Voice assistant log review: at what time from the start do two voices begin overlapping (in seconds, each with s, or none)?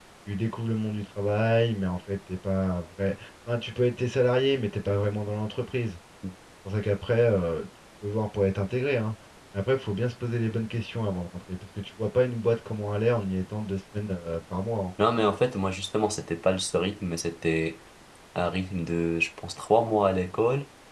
none